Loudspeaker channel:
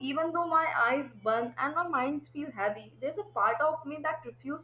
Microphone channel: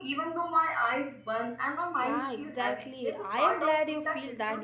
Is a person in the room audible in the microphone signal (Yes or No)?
Yes